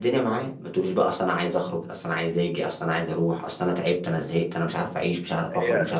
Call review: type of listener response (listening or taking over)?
taking over